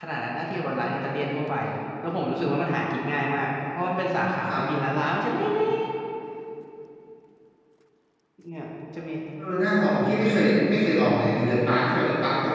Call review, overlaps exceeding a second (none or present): none